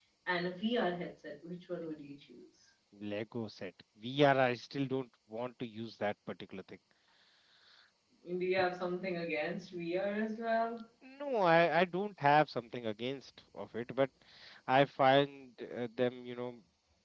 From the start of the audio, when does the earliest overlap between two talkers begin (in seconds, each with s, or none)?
none